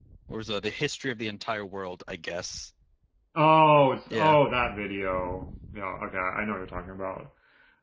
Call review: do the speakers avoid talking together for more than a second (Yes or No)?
Yes